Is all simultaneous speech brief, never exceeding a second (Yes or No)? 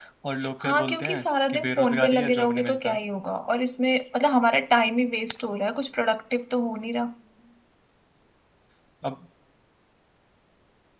No